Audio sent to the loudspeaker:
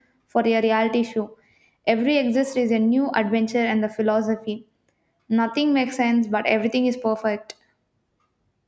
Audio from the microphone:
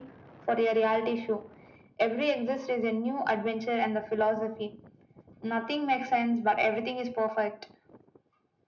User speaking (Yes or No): No